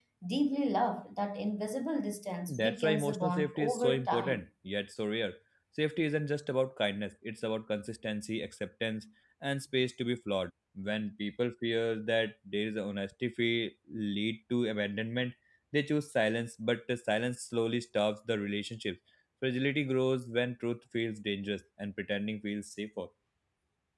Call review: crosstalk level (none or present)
present